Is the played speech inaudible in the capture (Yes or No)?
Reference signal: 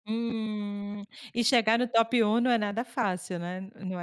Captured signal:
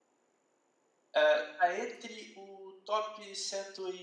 Yes